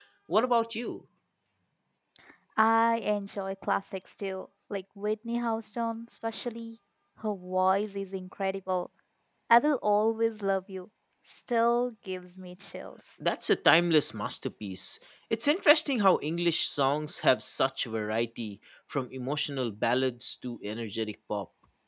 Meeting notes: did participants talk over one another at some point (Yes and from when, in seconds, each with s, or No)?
No